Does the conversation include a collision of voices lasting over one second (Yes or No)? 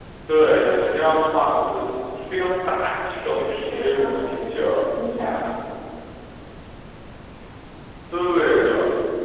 Yes